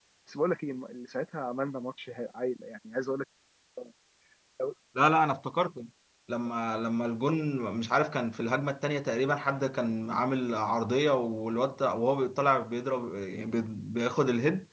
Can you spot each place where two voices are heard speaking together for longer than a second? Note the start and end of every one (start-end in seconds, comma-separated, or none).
none